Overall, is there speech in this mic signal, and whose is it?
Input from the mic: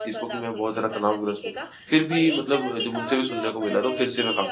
both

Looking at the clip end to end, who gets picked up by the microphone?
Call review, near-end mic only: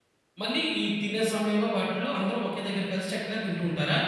user only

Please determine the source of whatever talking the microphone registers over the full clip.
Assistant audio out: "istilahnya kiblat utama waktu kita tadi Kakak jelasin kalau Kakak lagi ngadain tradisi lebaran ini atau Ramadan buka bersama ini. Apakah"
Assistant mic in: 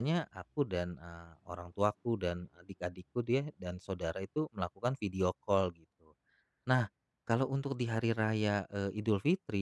user only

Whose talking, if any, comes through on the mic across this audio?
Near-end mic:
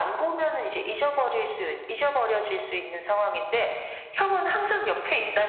echo only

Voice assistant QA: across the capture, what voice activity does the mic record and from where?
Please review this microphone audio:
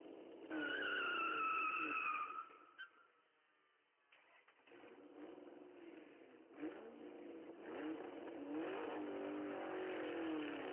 neither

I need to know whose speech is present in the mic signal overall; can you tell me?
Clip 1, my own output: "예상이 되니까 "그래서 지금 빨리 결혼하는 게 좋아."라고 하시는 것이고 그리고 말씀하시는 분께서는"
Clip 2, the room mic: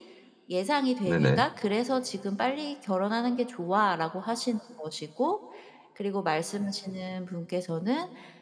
both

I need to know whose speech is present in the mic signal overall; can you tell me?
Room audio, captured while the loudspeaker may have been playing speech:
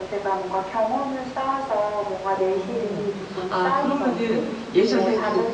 both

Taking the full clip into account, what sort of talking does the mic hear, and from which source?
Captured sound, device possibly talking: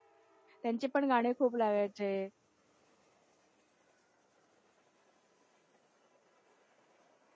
user only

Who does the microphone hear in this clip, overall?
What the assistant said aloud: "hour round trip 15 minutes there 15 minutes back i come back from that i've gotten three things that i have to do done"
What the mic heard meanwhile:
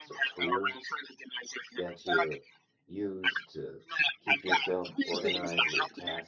both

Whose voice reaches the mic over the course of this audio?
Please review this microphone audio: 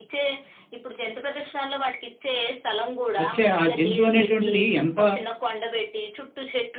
both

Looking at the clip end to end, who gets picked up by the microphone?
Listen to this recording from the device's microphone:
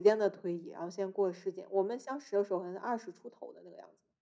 echo only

